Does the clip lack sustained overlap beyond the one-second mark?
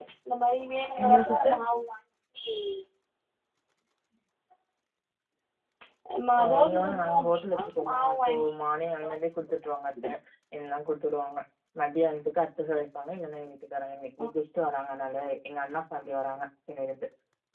No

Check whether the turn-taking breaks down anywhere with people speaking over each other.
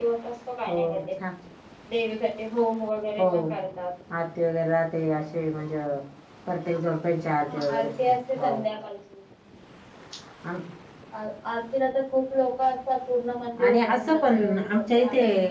Yes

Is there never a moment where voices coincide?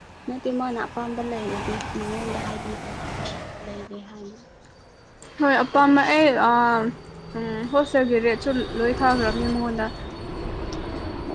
Yes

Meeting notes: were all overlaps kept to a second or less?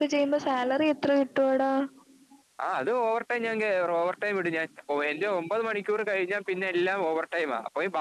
Yes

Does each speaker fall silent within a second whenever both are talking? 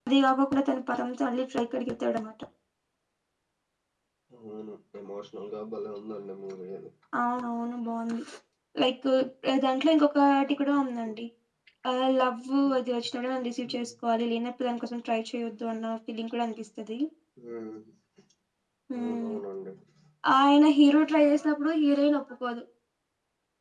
Yes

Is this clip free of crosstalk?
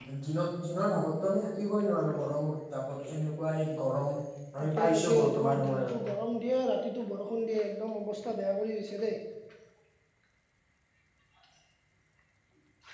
No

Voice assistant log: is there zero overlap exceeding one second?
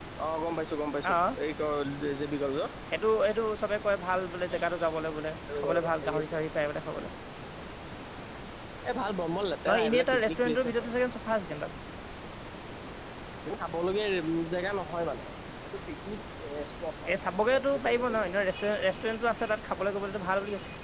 No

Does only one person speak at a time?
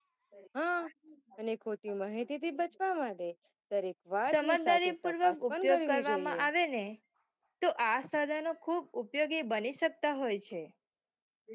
No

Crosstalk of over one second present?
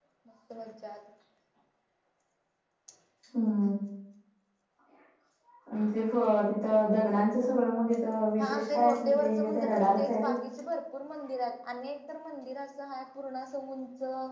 Yes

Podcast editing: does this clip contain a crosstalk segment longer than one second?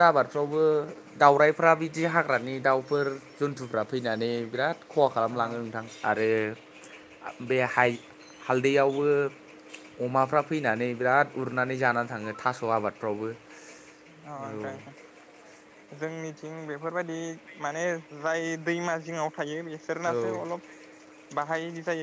No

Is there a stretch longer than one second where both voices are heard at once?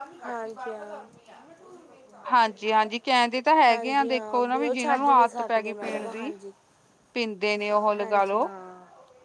Yes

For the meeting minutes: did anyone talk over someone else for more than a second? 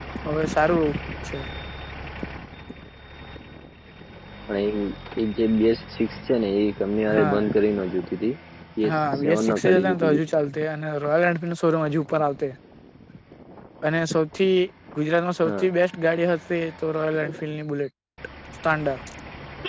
Yes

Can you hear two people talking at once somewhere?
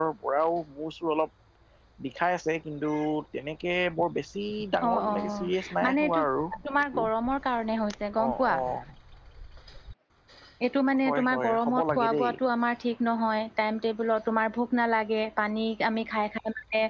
Yes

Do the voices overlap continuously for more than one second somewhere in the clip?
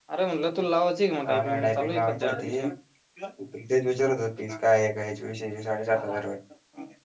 Yes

